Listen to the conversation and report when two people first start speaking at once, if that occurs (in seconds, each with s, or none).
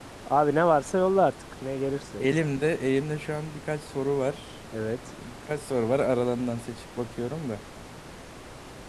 none